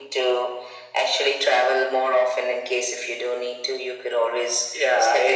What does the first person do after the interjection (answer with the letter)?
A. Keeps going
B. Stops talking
B